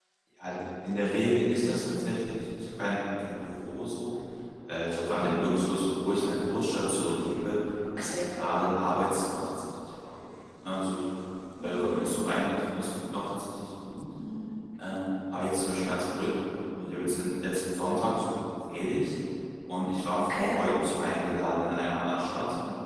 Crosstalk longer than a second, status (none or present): none